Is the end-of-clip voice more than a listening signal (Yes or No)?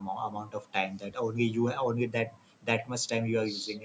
Yes